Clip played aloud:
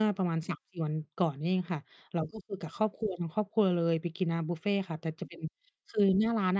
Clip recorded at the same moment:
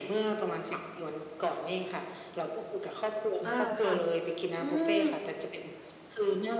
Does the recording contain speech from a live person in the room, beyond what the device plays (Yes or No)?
Yes